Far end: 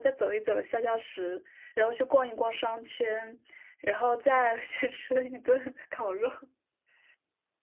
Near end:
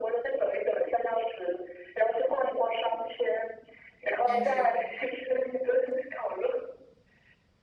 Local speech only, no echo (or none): 但是